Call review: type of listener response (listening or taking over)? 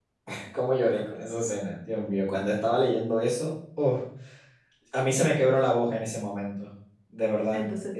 taking over